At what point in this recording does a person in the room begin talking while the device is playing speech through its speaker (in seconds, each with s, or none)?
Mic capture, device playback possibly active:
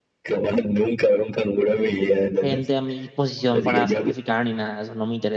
2.4 s